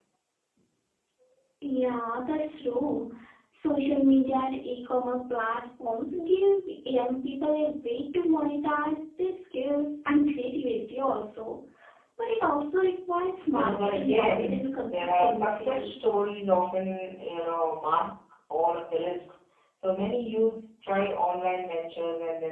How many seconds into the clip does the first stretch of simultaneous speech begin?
14 s

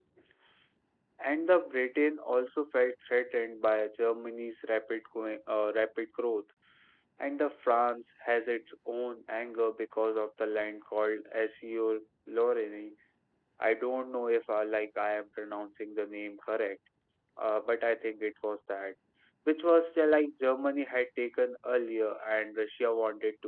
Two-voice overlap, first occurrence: none

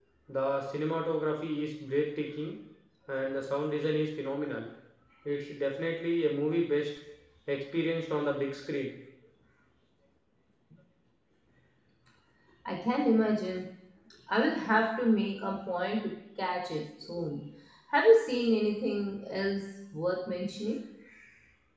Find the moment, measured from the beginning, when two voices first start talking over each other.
none

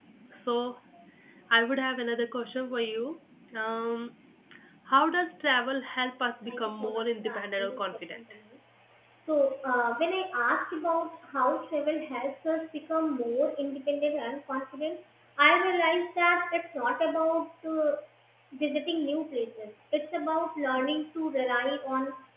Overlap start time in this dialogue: 6 s

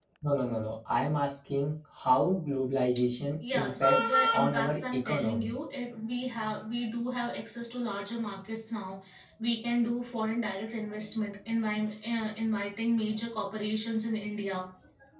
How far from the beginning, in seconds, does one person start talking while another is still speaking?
3 s

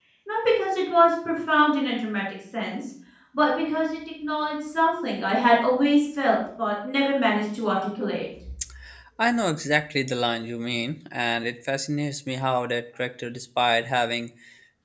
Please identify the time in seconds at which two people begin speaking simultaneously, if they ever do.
none

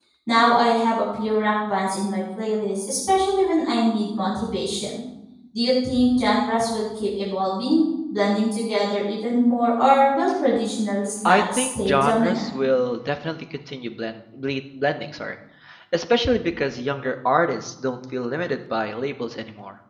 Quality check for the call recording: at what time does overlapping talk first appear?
11 s

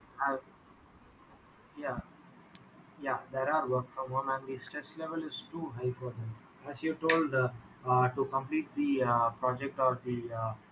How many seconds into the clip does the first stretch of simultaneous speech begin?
none

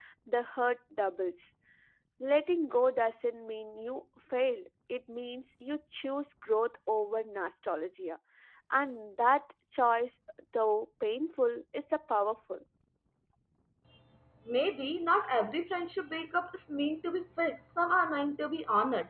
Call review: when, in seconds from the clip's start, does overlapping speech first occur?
none

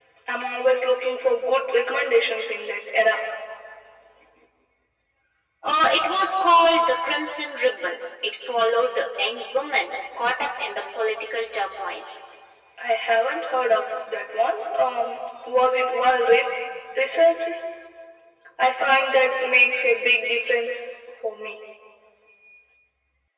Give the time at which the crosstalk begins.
none

